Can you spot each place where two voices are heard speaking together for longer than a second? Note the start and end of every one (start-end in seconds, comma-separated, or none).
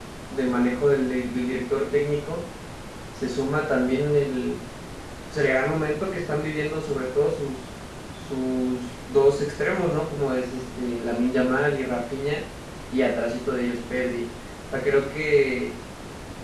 none